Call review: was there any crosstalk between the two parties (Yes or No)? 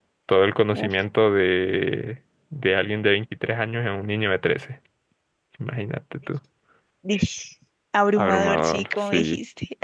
Yes